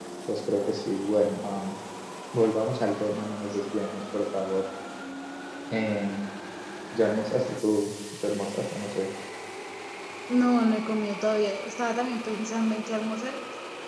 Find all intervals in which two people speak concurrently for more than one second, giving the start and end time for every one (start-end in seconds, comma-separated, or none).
none